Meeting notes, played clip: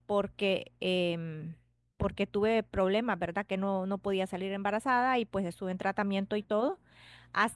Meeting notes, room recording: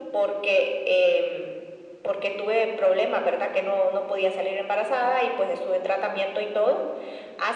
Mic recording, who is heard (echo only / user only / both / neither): echo only